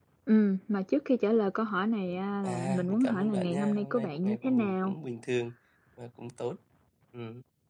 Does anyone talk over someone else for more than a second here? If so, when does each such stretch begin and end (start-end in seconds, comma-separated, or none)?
2.4-4.9